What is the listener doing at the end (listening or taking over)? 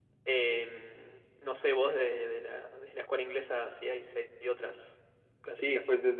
taking over